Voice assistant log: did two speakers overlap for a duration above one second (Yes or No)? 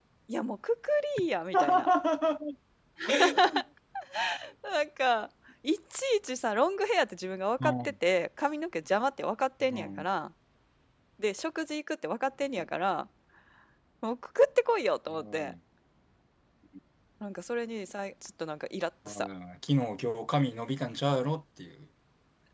No